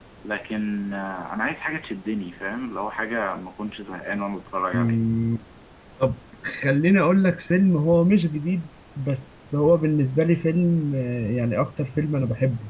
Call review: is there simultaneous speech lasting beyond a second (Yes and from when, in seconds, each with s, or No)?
No